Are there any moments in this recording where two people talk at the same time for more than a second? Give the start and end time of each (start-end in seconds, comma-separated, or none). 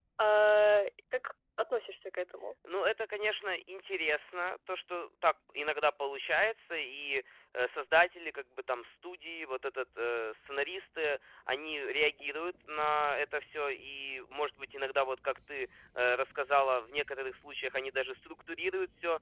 none